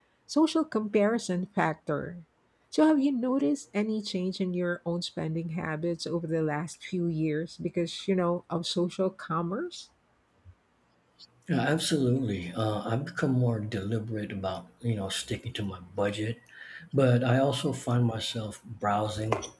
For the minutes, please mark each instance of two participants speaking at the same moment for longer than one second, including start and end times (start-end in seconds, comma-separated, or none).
none